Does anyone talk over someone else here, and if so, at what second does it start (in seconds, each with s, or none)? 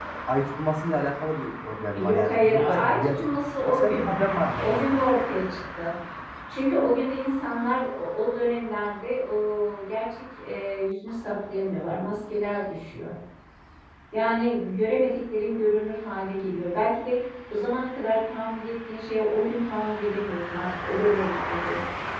1.9 s